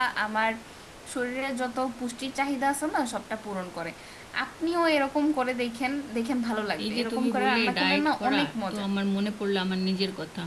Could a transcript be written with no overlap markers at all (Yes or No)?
No